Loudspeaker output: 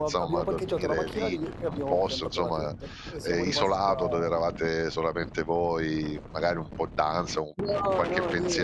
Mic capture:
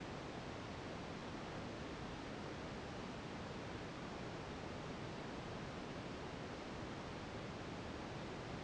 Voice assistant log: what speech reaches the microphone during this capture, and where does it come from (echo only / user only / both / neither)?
neither